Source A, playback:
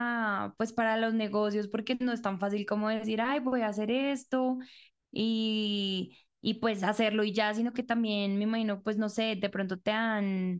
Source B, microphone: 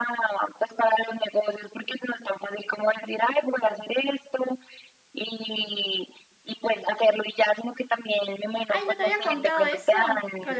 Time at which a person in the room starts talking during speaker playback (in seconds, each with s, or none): 8.7 s